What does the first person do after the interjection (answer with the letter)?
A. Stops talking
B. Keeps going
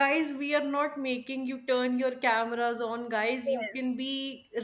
B